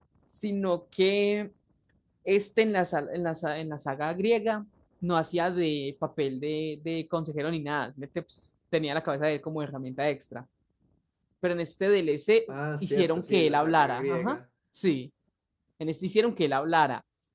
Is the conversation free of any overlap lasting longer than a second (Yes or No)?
No